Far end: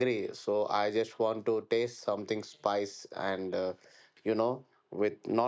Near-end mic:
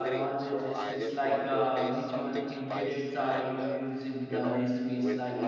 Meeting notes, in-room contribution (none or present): present